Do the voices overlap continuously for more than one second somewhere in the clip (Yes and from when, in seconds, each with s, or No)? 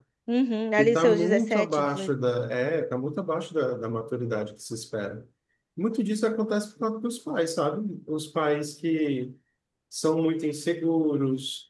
Yes, from 0.8 s